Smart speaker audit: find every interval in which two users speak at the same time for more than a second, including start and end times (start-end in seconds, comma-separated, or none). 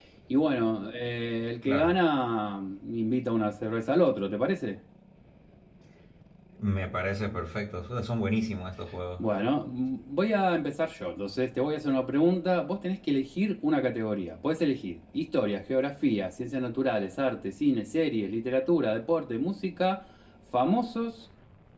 none